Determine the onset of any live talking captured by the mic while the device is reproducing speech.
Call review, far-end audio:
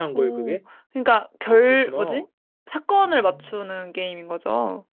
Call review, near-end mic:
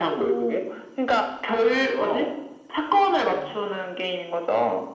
none

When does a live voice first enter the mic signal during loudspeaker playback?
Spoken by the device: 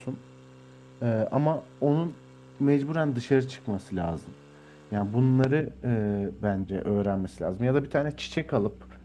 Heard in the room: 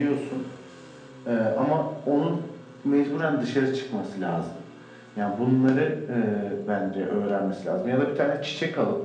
none

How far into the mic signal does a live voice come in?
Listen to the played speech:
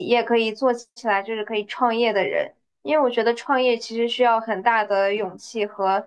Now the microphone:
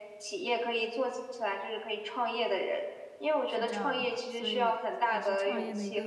3.4 s

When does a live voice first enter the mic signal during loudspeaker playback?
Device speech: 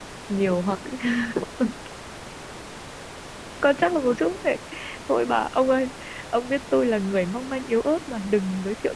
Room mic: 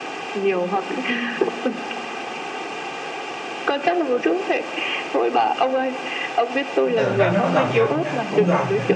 6.9 s

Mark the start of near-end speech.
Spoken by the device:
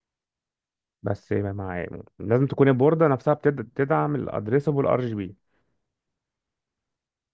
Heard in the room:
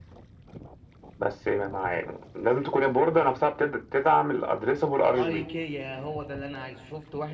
5.2 s

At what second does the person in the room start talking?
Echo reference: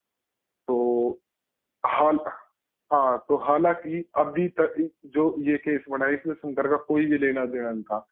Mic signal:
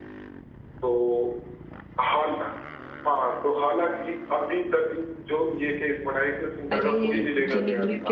6.7 s

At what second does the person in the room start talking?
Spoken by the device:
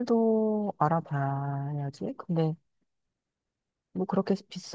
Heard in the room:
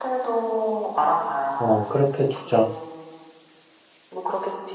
1.6 s

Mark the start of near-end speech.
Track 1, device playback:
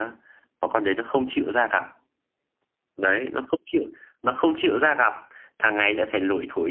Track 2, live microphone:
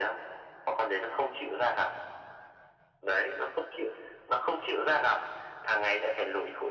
none

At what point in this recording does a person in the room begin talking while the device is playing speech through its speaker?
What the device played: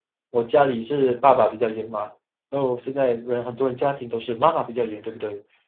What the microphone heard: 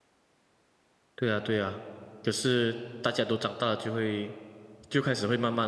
1.1 s

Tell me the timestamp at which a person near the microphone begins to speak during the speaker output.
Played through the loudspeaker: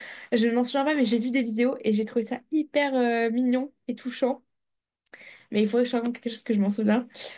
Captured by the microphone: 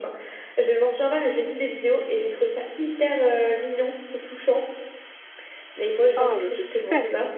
6.2 s

